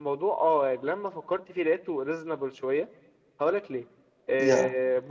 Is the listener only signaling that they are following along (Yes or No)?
Yes